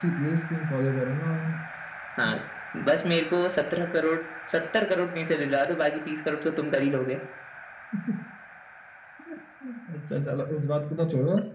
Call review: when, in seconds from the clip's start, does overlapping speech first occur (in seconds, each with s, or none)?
none